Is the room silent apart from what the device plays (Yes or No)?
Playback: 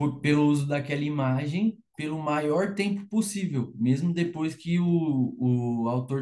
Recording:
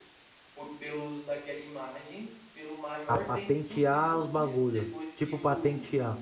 No